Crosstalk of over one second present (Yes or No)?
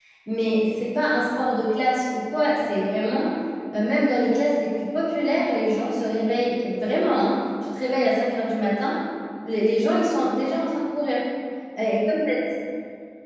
No